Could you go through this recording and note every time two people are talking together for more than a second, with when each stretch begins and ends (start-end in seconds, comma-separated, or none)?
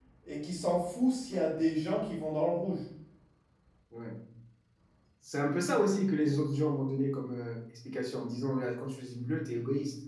none